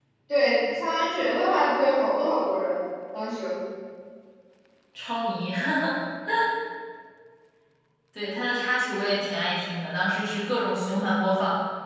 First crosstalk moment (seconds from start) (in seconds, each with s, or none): none